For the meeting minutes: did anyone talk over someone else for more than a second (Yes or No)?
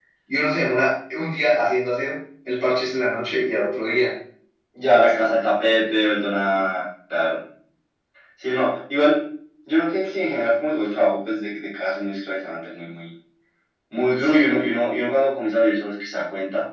No